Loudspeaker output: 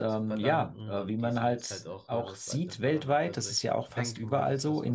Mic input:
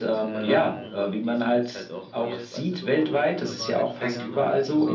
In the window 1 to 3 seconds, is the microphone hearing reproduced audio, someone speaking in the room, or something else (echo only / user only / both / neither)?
both